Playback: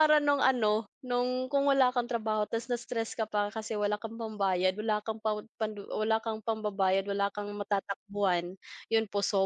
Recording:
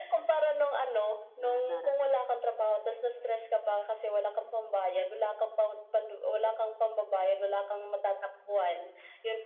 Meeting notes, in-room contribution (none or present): present